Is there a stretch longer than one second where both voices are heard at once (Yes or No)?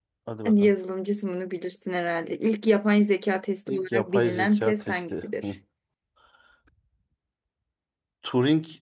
Yes